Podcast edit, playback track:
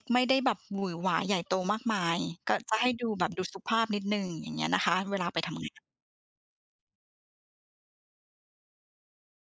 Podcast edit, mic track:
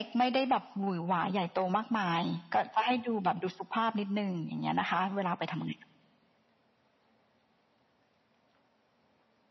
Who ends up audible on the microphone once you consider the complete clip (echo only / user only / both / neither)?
echo only